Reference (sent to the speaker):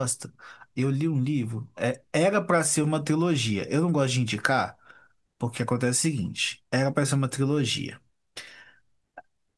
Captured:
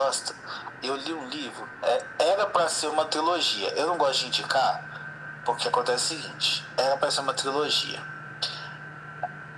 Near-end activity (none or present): none